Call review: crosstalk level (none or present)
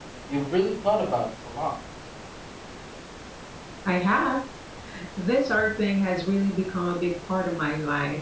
none